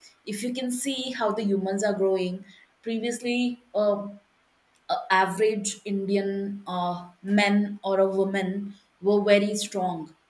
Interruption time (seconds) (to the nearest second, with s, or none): none